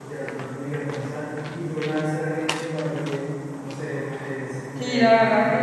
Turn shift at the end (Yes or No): Yes